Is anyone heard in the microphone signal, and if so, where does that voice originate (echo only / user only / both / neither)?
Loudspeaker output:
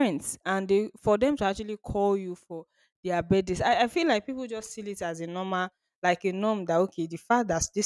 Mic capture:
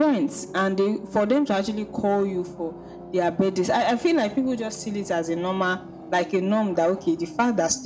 echo only